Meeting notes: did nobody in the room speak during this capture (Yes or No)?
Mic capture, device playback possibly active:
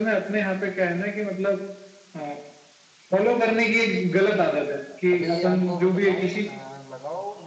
No